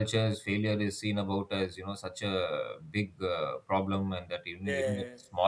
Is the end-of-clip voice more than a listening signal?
No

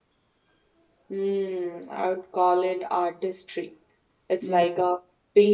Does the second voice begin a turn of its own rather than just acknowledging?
No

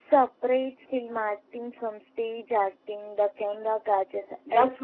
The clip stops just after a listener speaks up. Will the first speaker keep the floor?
No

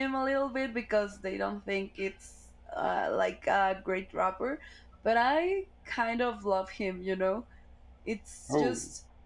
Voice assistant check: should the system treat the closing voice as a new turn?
No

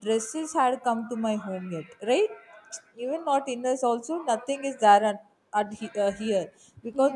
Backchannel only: Yes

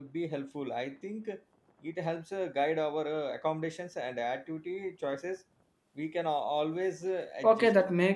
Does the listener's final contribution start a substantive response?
Yes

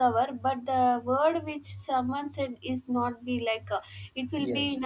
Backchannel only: Yes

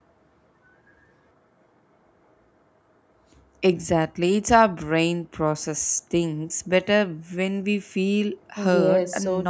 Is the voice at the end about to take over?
Yes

